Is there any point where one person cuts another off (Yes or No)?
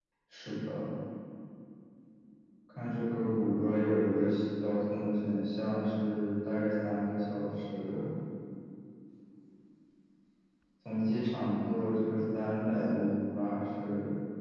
No